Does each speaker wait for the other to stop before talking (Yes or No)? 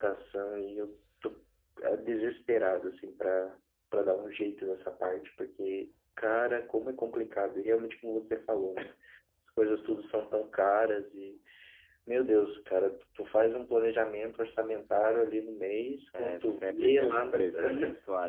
No